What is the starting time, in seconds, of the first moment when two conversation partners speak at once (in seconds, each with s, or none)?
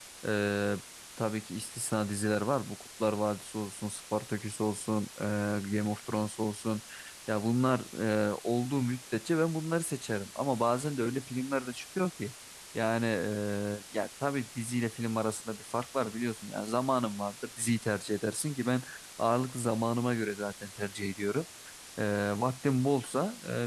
none